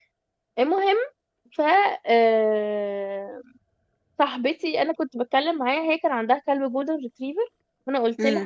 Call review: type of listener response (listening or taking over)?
listening